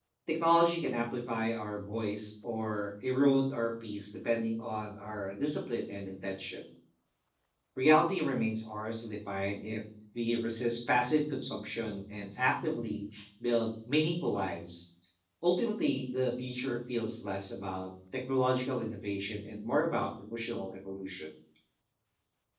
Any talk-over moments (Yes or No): No